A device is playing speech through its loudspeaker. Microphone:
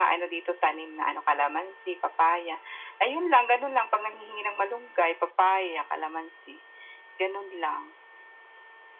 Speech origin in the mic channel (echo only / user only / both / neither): echo only